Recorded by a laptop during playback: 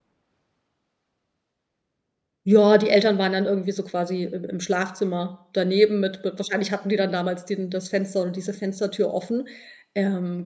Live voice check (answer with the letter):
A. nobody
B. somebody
B